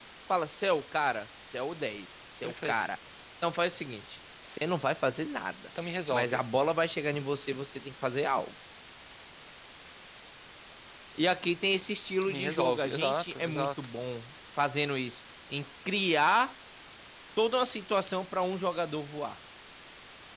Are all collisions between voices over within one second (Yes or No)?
No